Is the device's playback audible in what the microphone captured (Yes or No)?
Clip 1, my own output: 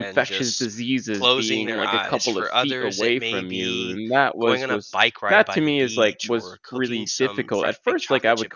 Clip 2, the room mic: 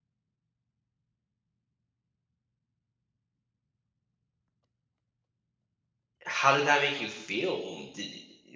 No